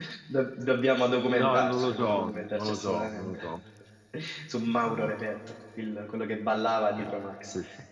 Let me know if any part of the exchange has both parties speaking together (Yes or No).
Yes